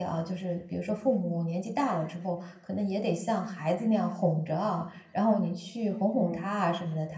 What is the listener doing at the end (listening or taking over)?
listening